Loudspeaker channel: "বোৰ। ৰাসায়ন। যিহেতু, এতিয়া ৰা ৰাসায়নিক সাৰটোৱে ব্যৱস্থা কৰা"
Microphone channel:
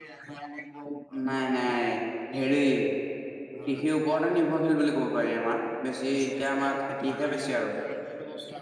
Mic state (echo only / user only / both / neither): both